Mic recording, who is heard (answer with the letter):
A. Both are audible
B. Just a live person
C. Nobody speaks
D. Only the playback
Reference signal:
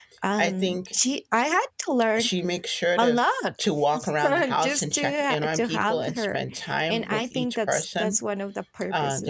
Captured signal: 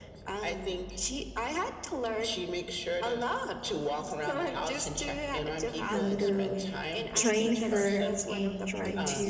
A